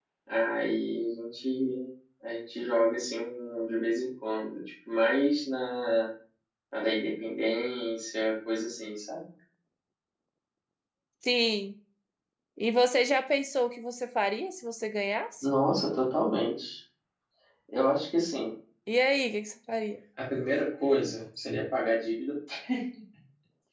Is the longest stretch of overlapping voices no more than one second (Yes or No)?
Yes